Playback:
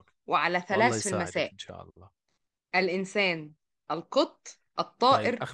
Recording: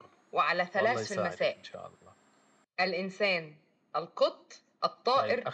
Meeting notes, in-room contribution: none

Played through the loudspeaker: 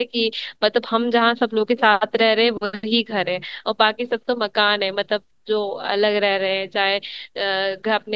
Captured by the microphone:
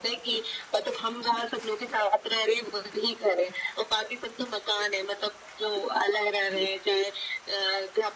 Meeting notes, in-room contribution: none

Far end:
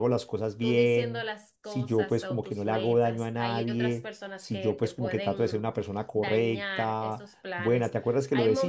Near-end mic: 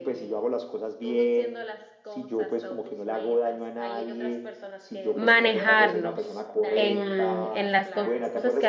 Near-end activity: present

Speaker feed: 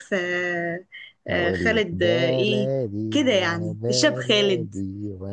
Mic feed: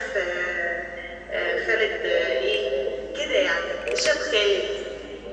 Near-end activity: none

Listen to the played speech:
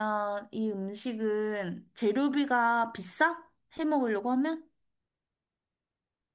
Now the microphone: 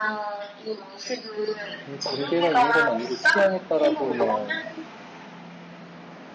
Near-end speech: present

